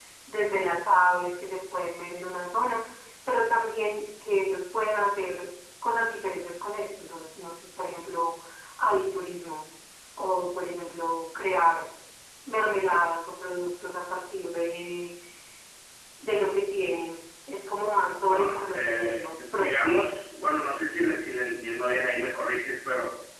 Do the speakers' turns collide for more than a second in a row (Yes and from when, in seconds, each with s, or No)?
Yes, from 18.3 s